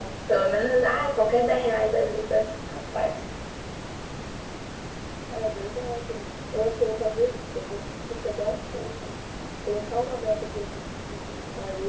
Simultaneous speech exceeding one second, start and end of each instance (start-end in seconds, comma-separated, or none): none